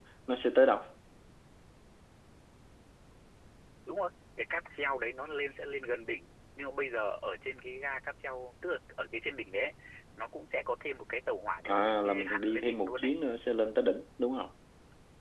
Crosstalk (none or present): present